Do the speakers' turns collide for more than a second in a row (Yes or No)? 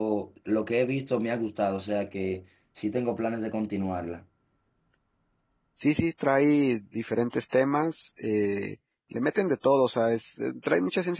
No